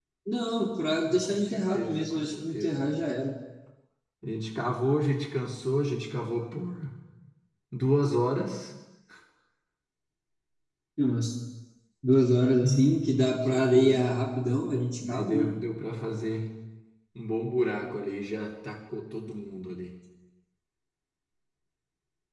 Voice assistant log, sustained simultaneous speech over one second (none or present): present